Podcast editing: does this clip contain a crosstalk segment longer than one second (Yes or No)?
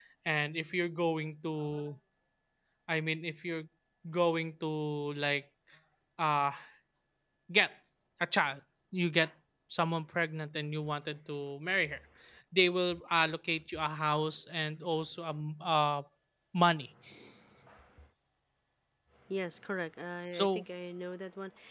No